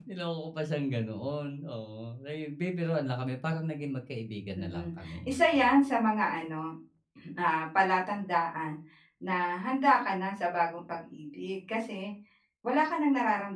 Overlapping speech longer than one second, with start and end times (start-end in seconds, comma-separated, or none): 4.6-5.8